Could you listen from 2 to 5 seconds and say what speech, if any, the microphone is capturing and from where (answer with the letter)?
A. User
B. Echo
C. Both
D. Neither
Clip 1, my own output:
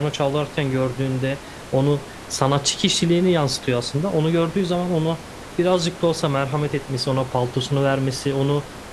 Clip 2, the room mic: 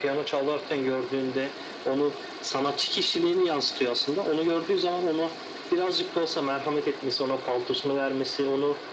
B